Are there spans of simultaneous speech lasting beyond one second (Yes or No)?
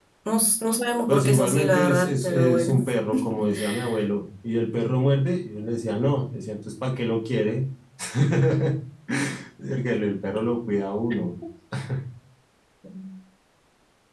Yes